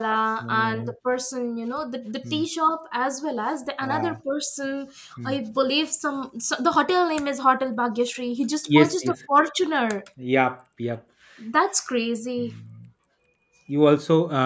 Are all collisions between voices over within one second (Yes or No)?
Yes